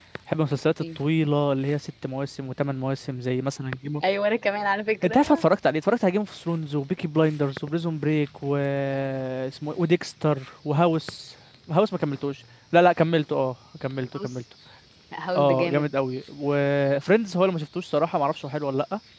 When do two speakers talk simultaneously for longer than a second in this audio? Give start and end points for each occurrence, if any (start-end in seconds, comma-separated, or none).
none